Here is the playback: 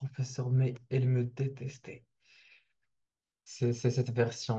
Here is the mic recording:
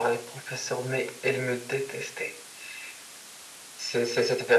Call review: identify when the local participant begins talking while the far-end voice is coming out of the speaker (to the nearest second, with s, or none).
none